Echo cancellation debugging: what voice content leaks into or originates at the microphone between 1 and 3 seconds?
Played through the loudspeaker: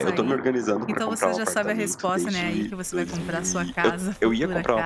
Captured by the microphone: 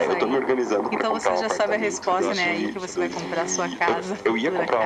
both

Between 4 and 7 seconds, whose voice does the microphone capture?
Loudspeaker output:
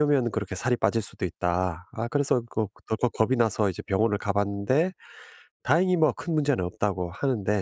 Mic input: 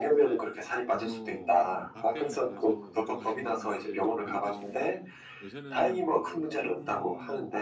both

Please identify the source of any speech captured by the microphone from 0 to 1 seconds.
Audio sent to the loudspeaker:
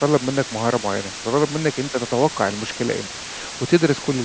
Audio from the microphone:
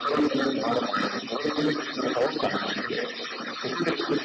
echo only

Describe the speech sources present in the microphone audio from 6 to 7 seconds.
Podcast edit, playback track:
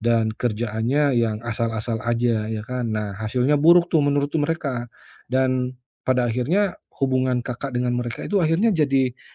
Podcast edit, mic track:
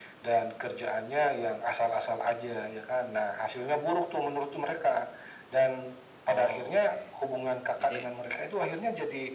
both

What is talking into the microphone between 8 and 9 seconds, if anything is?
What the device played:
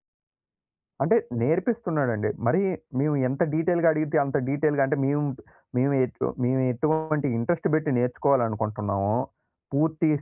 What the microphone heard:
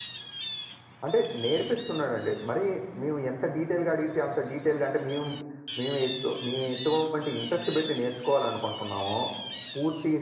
echo only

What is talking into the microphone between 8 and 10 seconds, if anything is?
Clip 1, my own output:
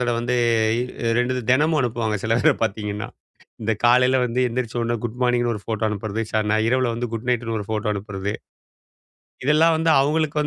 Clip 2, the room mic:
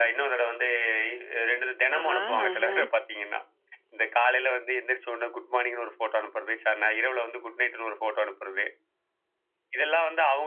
echo only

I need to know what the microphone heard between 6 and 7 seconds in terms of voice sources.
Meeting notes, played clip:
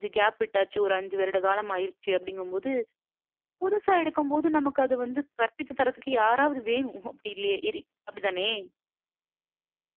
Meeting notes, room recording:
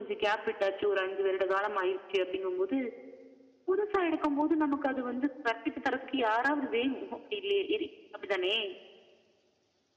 echo only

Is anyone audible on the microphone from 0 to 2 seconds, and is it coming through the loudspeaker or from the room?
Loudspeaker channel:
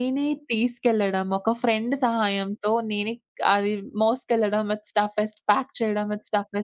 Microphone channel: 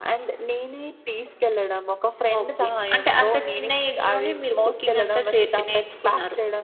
echo only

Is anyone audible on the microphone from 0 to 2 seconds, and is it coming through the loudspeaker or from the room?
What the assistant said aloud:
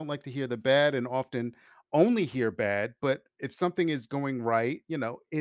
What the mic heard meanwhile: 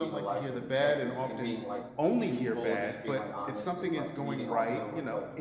both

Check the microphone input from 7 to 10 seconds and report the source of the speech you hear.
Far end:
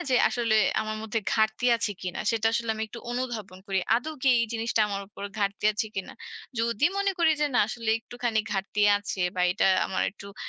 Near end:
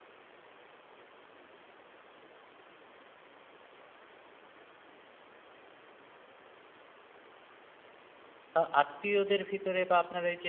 user only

